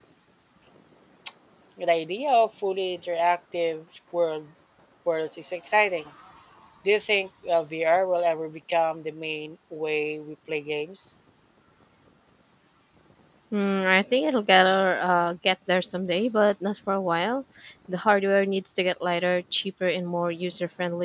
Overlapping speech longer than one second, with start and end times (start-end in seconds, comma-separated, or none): none